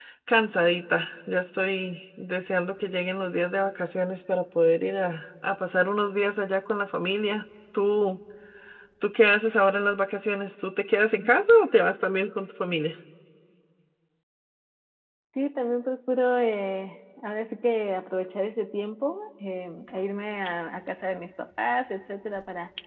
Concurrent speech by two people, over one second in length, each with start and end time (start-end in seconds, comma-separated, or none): none